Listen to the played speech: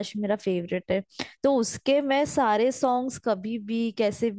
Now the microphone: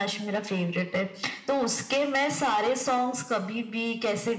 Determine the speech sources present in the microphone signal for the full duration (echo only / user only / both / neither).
echo only